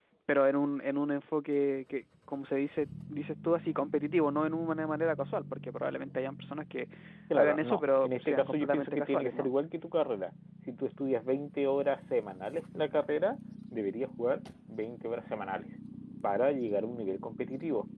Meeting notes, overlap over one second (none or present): present